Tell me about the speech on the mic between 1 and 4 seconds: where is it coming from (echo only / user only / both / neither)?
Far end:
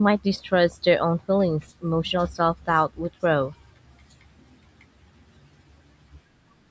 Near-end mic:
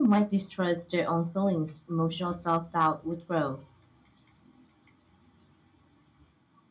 echo only